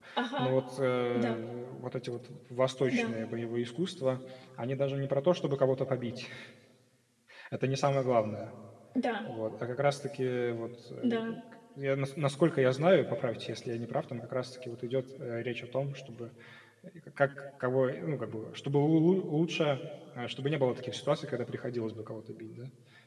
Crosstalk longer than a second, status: none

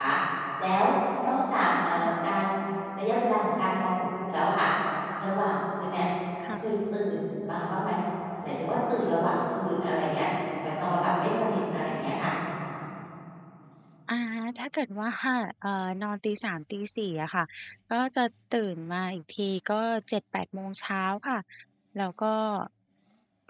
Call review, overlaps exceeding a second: none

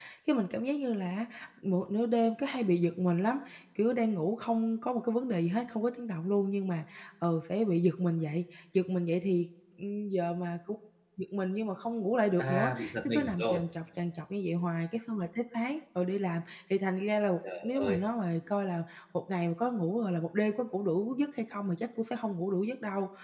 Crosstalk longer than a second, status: present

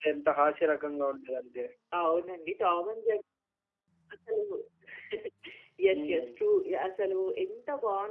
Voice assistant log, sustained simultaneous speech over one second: none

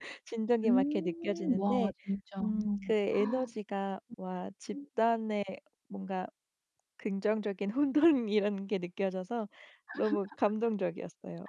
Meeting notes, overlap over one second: present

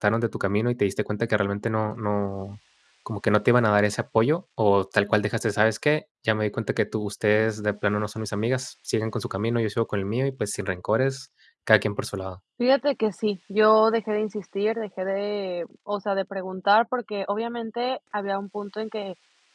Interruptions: none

